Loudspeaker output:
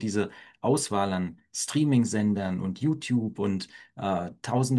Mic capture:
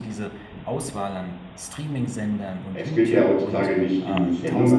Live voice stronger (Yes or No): Yes